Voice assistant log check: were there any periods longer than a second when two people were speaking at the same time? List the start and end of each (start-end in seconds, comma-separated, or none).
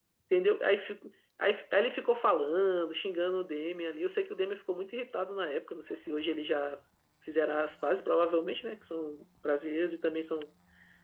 none